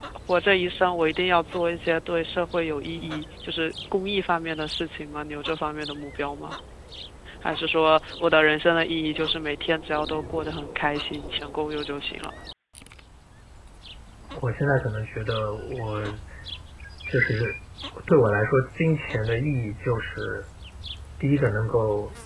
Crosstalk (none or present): none